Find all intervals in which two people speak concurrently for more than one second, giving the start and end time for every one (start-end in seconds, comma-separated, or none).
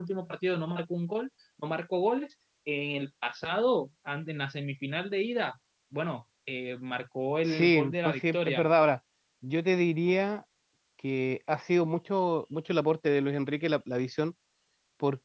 7.5-8.7